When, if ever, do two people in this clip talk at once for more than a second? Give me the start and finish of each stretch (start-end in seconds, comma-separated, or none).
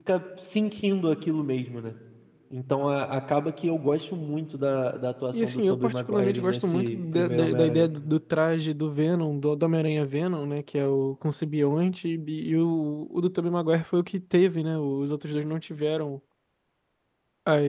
5.3-7.9